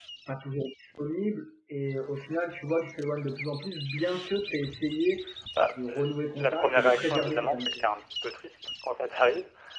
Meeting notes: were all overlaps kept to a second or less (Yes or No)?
No